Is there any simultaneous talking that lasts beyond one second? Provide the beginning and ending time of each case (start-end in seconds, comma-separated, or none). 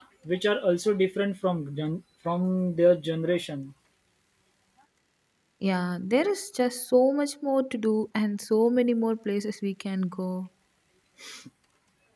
none